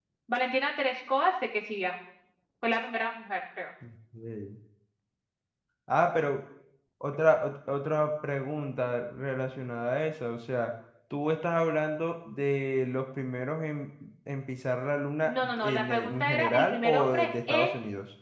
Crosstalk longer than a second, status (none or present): present